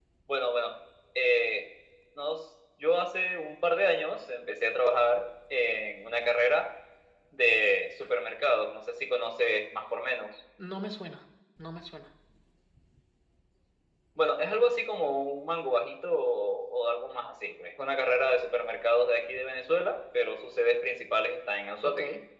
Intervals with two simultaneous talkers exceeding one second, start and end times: none

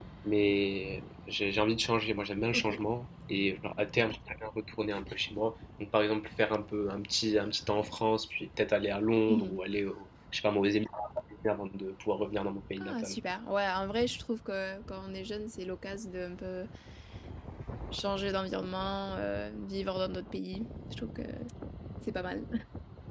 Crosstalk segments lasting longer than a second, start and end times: none

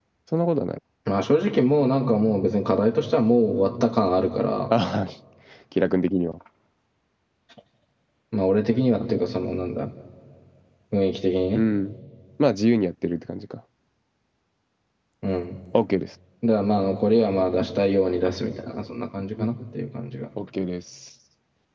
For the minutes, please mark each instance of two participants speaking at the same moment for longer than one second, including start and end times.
none

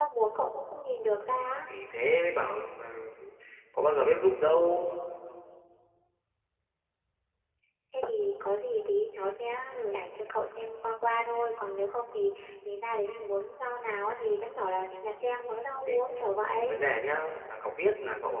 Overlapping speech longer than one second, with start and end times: none

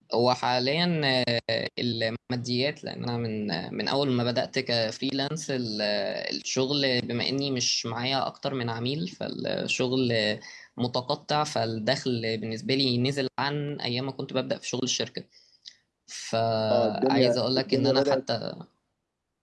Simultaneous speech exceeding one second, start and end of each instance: 16.7-18.2

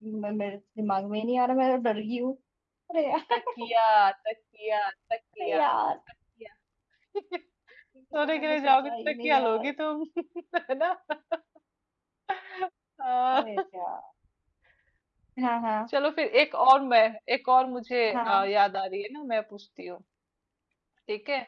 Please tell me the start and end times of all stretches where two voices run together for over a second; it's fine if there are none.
8.2-9.7

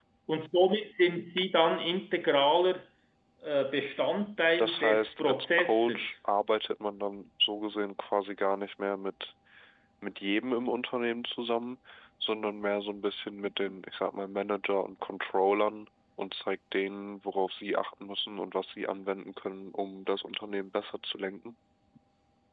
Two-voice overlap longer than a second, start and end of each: 4.6-6.1

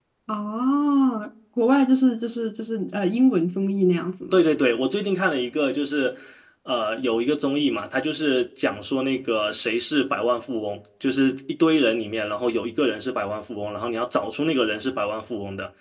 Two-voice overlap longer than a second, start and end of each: none

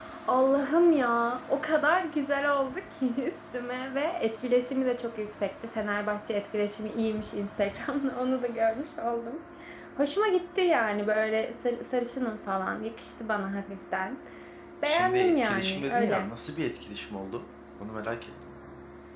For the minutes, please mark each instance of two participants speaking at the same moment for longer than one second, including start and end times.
14.8-16.3

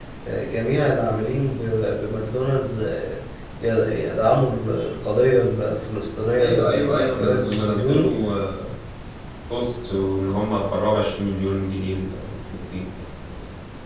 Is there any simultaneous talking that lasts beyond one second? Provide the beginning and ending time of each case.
6.4-8.1

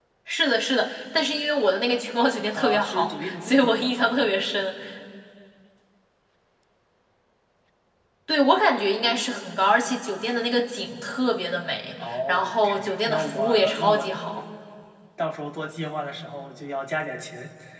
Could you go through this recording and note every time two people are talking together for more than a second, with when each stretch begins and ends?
2.5-4.3, 12.0-14.1

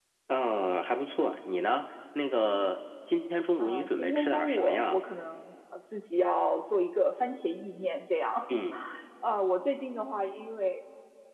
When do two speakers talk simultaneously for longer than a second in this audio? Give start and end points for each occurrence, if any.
3.6-5.0

